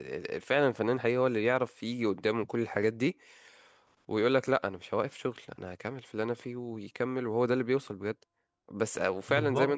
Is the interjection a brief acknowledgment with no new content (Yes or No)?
Yes